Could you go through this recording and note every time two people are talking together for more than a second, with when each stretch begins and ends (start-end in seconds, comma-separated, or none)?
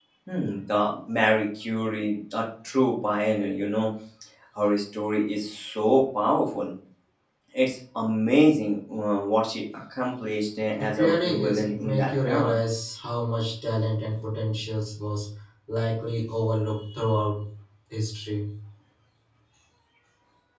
10.8-12.5